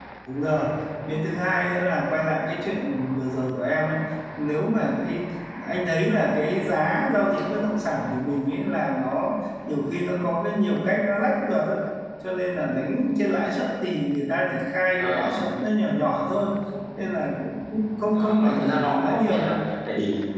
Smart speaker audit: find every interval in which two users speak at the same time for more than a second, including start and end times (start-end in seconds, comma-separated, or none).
18.1-19.5